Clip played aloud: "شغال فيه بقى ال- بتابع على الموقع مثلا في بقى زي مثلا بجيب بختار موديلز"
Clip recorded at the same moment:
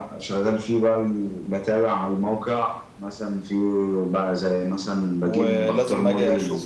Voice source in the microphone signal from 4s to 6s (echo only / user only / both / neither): both